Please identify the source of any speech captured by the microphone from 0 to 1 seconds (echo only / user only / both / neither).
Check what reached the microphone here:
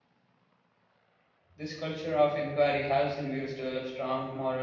neither